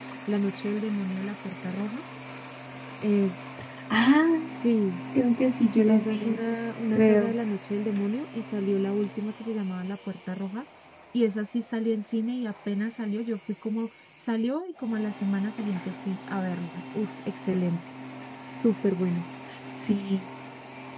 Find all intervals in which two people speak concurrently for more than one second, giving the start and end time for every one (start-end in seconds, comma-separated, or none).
none